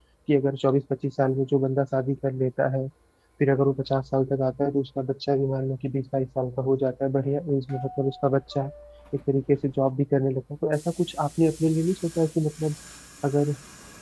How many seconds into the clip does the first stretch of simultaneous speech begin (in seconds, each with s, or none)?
none